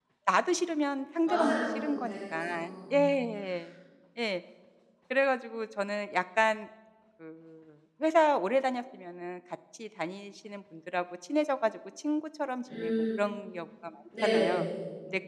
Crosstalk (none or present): present